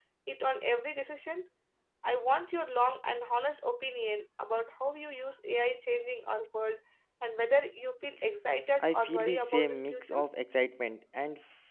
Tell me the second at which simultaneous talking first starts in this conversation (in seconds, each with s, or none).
8.8 s